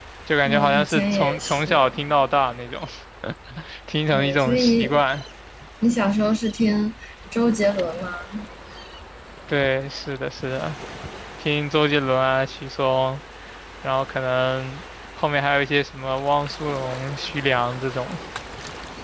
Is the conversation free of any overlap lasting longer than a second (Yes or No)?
No